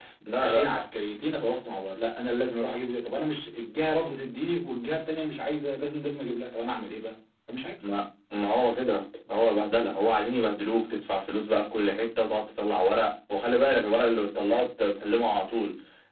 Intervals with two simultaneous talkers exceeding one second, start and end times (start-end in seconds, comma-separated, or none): none